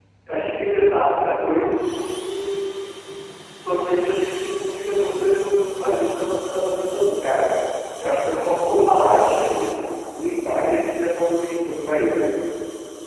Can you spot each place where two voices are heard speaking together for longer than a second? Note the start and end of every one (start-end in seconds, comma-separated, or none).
8.4-9.6